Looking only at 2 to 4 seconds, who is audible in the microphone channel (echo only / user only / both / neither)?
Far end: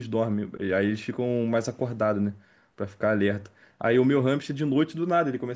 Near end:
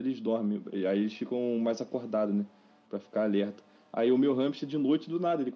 echo only